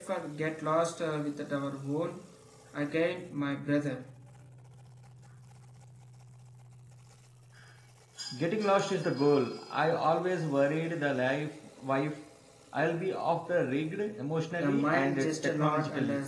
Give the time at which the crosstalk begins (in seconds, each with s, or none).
14.6 s